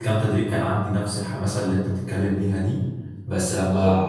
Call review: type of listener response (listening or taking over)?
listening